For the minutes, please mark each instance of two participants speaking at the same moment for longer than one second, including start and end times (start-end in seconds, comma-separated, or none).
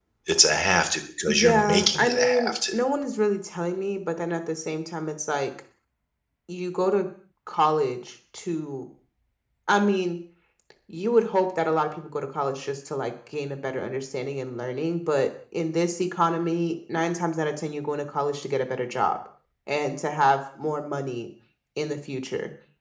1.3-2.5